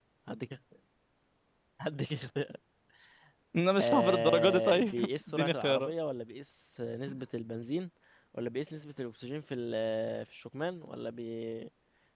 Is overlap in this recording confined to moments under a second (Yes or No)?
No